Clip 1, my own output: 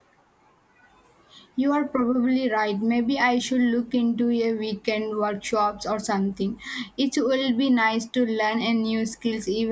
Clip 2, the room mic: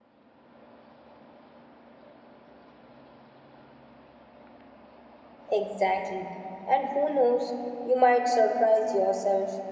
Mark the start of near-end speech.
6 s

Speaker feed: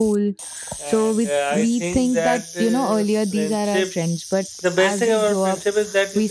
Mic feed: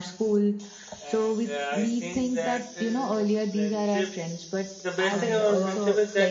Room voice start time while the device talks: 5 s

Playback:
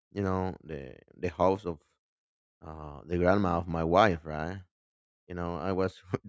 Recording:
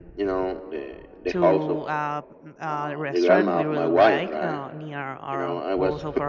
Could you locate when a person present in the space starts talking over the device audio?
1 s

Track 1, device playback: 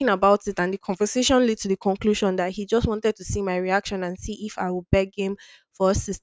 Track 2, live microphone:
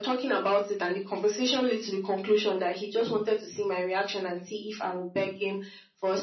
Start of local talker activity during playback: none

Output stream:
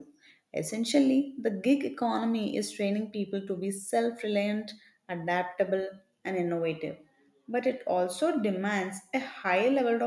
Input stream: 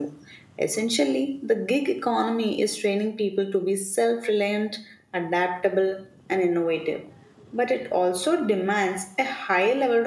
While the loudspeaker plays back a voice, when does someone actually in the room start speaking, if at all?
none

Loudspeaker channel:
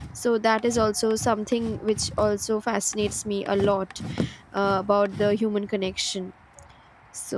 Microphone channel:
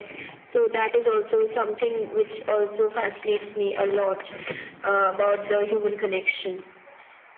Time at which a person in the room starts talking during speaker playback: none

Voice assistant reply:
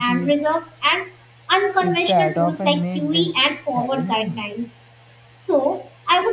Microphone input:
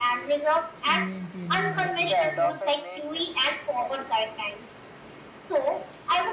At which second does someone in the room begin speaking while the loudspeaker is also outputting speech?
1 s

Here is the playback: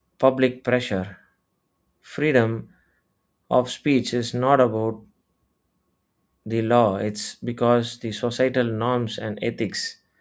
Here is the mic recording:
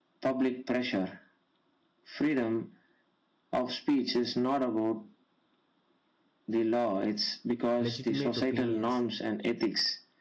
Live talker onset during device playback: 8 s

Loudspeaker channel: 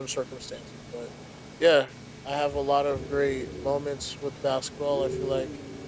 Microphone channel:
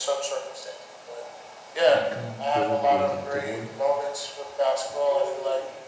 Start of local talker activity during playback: 2 s

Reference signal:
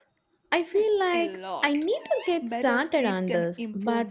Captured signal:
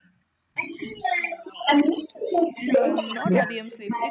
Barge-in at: 3 s

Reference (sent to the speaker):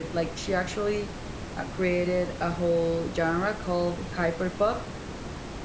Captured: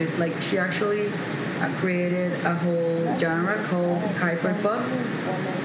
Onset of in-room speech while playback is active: 3 s

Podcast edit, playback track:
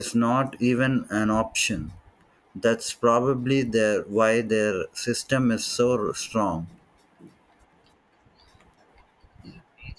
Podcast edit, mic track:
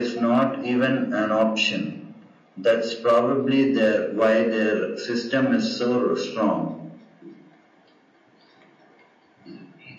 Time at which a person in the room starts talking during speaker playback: none

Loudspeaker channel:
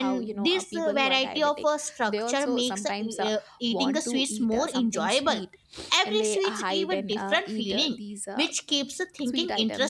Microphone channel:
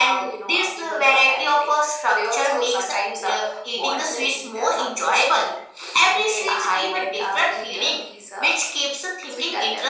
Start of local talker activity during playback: none

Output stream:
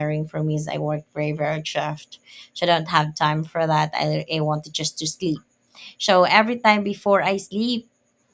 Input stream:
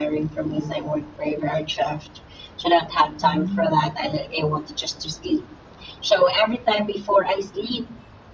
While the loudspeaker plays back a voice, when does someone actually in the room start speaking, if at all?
3 s

